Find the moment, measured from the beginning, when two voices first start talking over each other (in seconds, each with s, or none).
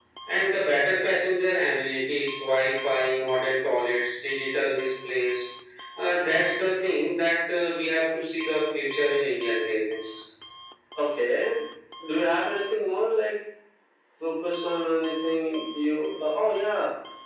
none